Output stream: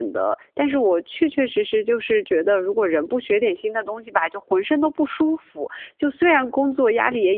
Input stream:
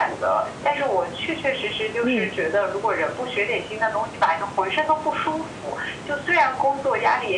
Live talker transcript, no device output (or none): 嗯。